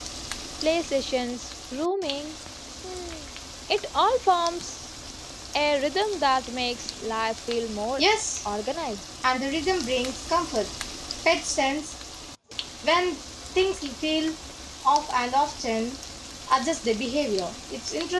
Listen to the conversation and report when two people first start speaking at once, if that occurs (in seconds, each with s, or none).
none